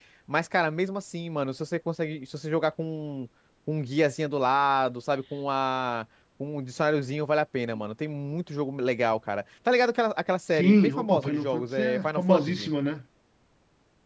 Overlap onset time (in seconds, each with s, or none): 10.5 s